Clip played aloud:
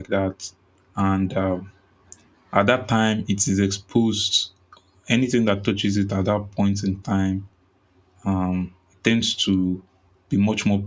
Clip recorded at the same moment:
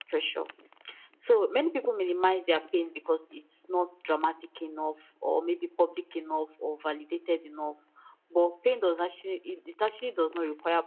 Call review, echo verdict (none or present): none